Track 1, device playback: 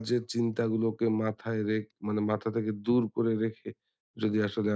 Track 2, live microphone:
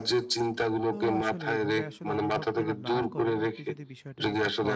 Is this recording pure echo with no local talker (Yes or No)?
No